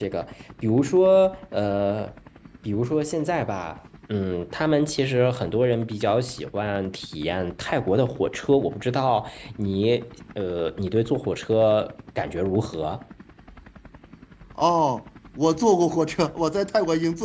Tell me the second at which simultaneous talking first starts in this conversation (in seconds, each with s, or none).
none